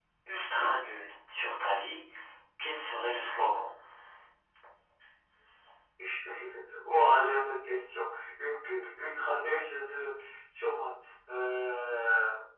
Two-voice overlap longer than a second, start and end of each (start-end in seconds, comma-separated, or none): none